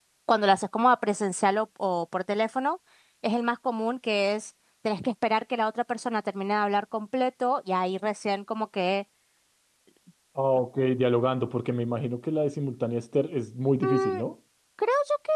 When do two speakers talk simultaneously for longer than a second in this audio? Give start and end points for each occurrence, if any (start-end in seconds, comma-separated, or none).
none